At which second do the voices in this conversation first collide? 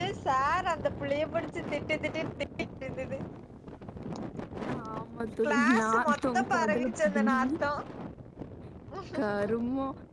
5.5 s

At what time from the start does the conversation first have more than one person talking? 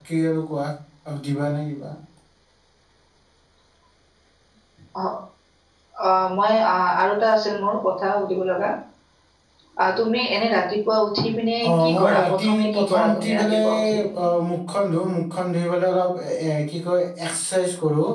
11.6 s

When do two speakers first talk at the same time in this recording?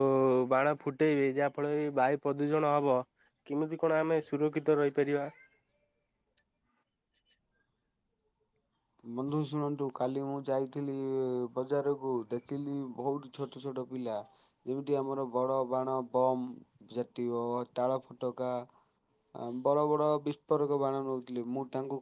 none

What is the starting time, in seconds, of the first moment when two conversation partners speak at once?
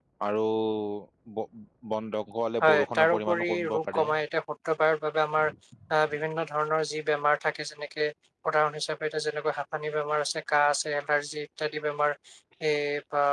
2.6 s

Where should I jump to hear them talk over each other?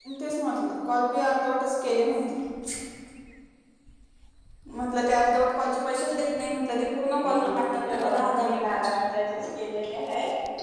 7.2 s

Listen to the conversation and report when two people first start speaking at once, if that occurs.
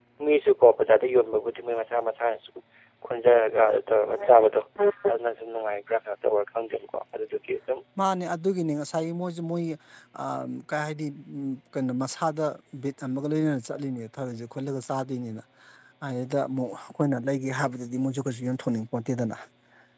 none

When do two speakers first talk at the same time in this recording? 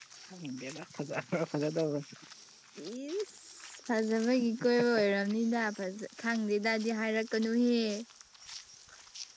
none

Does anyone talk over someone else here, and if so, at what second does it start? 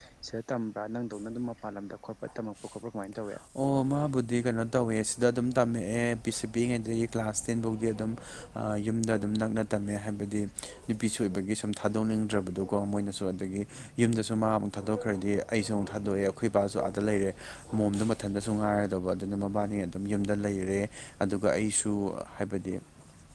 none

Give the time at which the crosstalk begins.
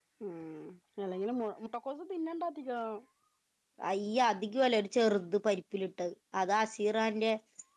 none

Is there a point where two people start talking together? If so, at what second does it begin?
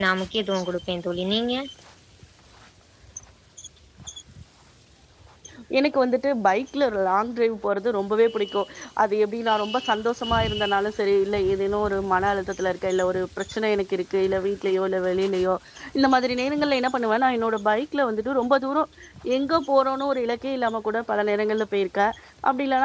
none

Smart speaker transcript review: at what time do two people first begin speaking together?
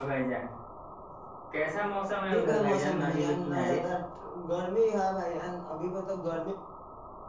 2.3 s

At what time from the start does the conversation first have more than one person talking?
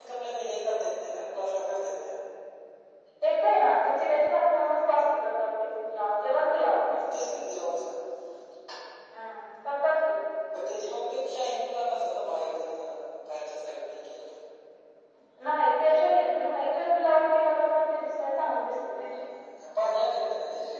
none

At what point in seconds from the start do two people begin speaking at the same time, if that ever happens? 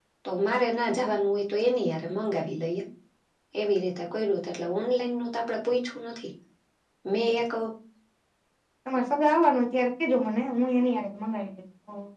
none

